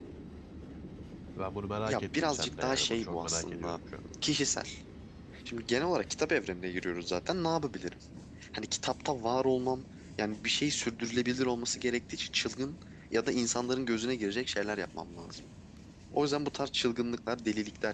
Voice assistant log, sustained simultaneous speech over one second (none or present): present